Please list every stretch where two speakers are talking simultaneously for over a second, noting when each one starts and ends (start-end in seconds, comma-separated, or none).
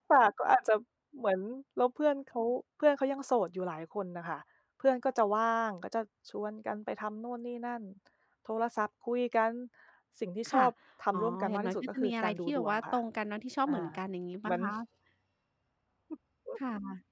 11.1-13.0